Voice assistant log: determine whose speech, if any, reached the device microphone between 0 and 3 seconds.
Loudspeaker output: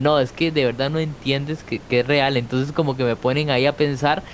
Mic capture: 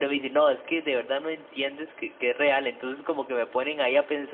echo only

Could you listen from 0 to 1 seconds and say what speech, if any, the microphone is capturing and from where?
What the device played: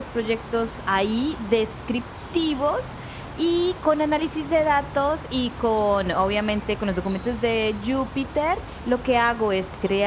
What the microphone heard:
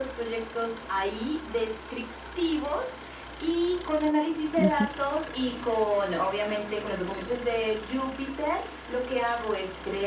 echo only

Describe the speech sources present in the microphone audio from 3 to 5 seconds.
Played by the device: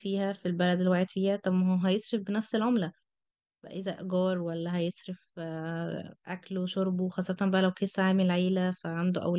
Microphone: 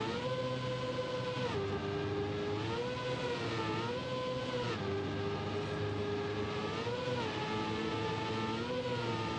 neither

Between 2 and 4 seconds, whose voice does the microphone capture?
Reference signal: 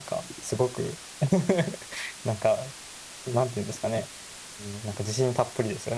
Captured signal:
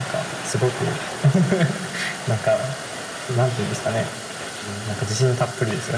echo only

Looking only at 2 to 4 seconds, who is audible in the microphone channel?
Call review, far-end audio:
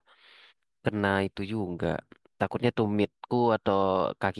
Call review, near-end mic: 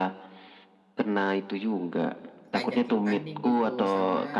both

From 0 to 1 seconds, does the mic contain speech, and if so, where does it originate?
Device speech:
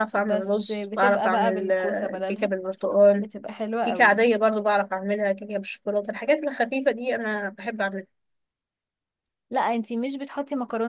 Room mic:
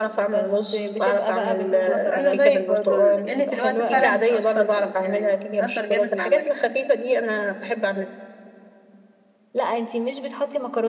echo only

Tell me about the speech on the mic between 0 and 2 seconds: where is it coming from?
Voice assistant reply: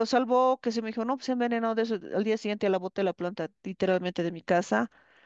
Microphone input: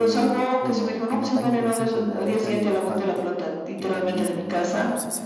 both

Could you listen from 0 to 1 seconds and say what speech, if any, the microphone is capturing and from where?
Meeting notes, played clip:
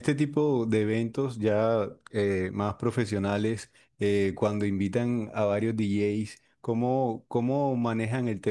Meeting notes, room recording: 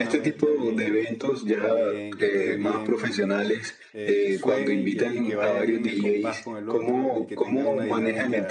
both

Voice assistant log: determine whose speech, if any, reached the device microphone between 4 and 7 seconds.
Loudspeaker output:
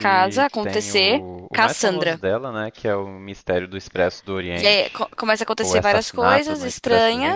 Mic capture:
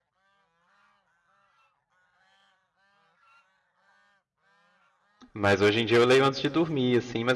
user only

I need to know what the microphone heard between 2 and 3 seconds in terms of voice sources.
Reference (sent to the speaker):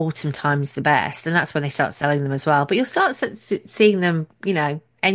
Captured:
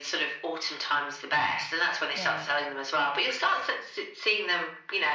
both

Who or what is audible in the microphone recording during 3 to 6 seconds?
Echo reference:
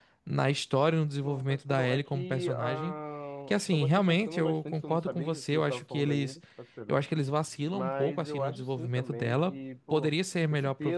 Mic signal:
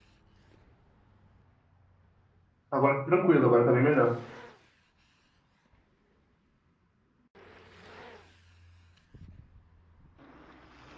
user only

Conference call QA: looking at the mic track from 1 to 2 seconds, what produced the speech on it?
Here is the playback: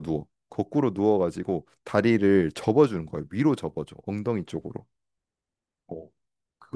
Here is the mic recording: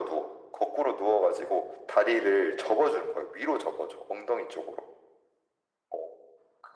echo only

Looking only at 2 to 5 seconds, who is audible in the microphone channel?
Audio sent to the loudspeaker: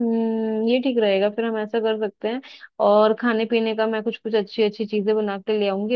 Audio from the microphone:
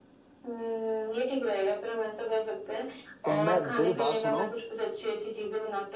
both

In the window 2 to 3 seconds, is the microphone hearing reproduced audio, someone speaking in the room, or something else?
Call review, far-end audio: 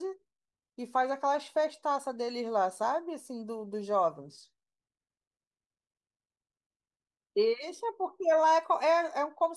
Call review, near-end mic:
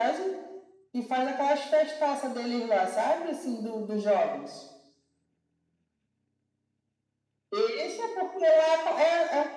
echo only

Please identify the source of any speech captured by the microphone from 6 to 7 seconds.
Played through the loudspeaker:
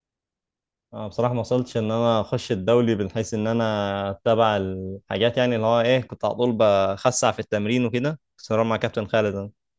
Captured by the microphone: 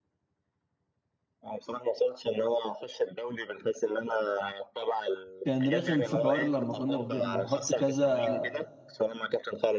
both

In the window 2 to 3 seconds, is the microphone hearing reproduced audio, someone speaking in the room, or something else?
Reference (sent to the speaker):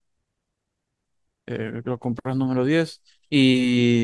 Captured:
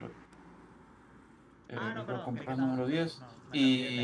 both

